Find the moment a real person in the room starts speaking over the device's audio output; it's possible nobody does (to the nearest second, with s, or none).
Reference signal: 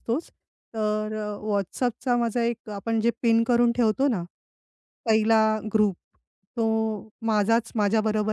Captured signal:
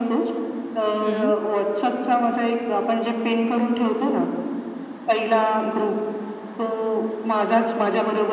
1 s